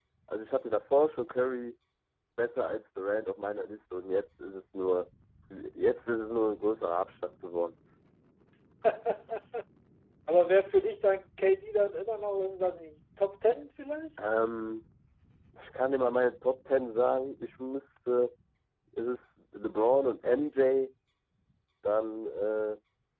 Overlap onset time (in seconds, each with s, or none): none